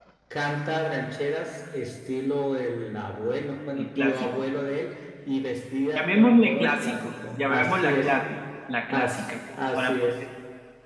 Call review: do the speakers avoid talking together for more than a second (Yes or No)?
No